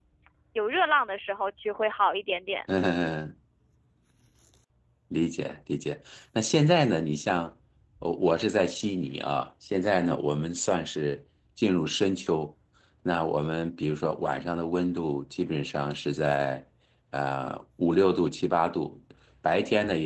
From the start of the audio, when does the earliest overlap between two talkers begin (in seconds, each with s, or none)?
none